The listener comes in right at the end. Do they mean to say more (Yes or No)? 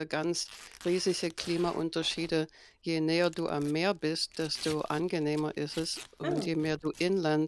No